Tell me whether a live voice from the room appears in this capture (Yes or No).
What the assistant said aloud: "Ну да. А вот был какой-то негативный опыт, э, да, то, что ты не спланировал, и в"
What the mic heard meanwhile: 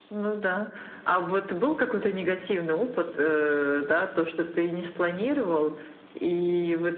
No